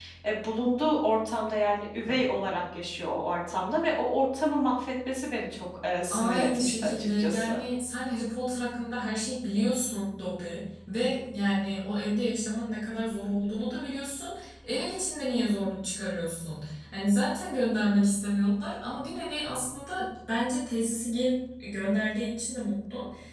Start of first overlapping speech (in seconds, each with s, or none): 6.1 s